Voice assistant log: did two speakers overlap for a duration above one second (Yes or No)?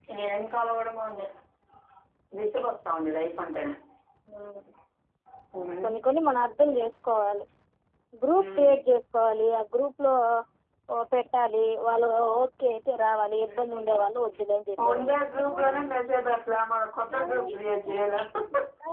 No